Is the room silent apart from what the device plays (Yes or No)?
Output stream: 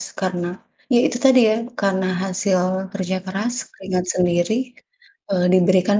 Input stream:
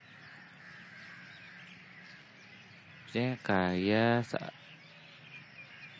No